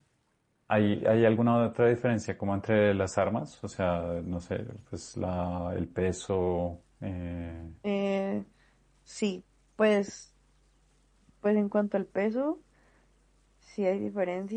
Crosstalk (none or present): none